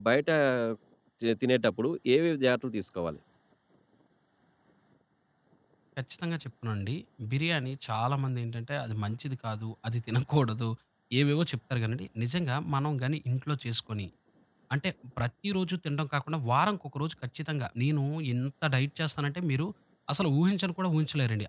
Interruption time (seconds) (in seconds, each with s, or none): none